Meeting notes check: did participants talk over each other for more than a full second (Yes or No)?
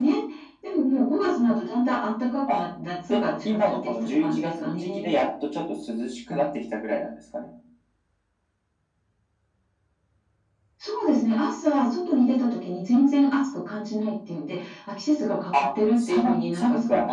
Yes